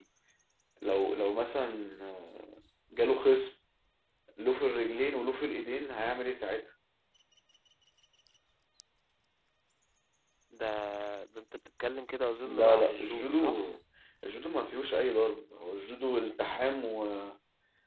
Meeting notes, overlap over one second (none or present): present